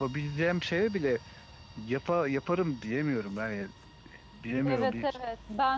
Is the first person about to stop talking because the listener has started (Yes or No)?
Yes